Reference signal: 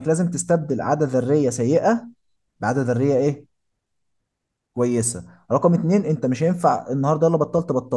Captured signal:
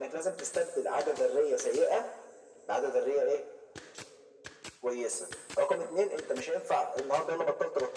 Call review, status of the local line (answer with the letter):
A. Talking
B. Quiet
B